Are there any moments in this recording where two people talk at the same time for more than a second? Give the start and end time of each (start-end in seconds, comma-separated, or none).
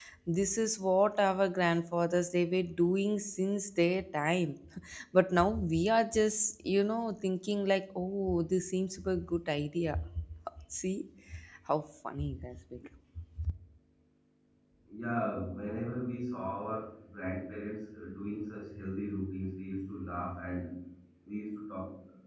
none